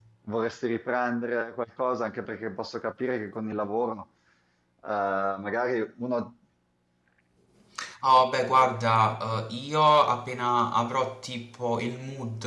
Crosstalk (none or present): none